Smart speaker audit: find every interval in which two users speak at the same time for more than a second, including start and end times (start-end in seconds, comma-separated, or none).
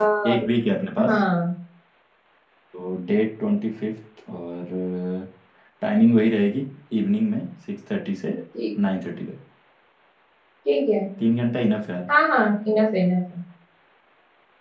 none